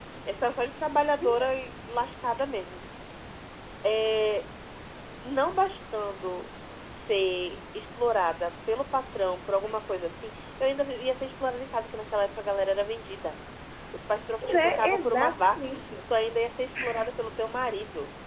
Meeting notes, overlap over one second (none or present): present